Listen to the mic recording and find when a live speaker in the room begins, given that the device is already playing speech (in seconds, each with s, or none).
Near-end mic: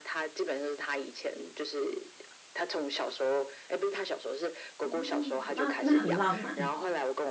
4.8 s